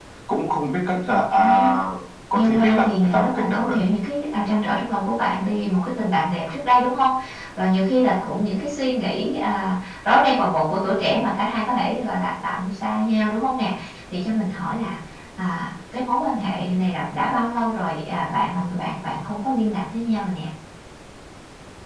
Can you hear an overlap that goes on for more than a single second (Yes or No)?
Yes